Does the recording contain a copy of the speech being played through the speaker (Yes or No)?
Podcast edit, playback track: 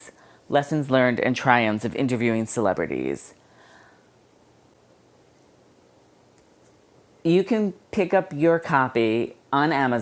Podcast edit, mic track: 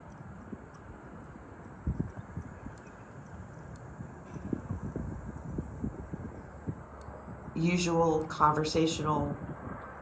No